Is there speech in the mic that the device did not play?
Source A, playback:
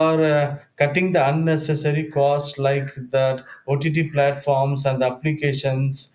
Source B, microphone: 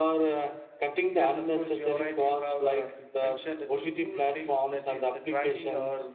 Yes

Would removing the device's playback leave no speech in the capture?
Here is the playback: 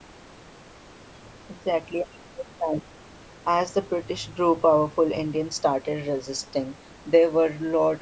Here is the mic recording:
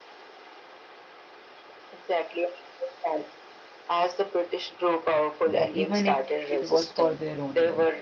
No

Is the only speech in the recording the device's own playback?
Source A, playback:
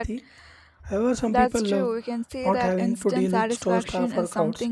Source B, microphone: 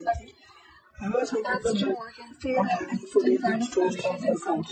Yes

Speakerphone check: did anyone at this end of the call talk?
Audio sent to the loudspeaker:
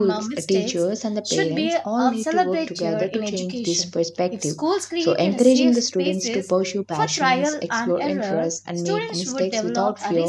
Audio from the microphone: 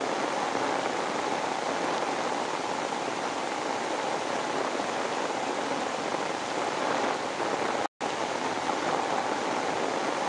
No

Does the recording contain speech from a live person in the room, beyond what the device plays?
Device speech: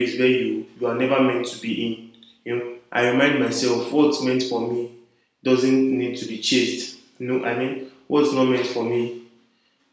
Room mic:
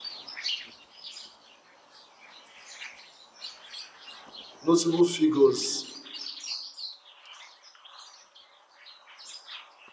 Yes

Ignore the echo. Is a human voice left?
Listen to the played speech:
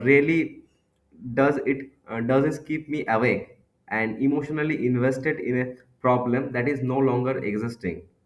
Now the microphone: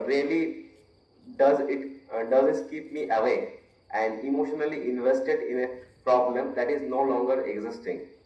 No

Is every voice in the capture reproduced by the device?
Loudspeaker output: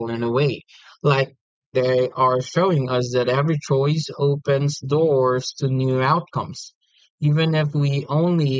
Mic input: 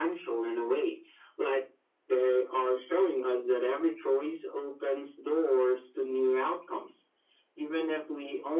Yes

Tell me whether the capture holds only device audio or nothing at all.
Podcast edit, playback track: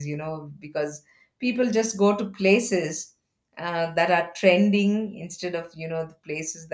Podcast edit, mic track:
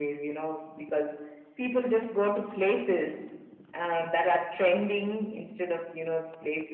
Yes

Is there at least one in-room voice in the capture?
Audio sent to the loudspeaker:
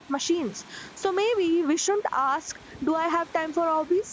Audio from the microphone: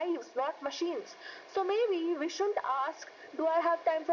No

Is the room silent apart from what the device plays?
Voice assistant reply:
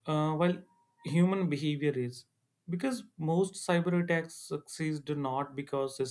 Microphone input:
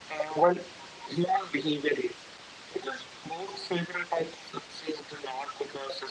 Yes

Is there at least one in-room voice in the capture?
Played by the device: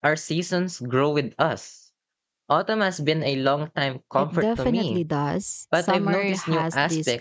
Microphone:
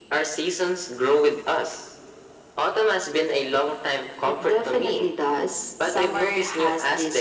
No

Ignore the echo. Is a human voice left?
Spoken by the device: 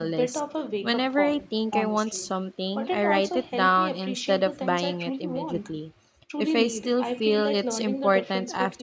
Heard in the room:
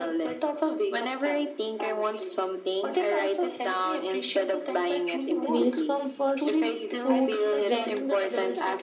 Yes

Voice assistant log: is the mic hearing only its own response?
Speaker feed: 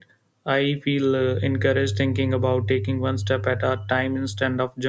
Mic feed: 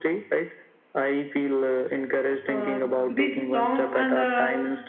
No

